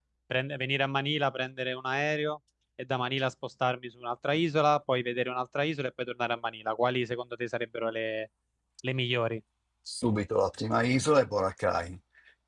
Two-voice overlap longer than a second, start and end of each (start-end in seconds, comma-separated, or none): none